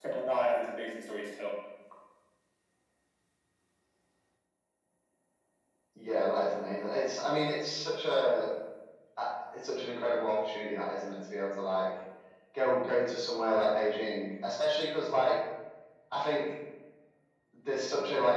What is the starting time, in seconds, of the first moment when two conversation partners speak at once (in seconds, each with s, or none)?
none